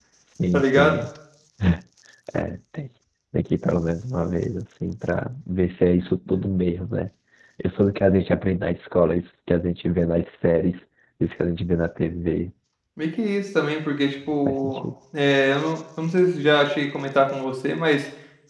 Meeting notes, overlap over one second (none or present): none